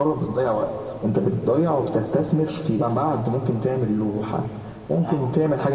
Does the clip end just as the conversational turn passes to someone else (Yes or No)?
No